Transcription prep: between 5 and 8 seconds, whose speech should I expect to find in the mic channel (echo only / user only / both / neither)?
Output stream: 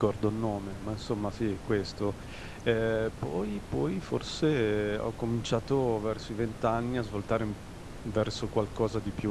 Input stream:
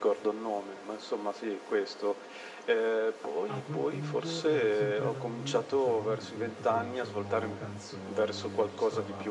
both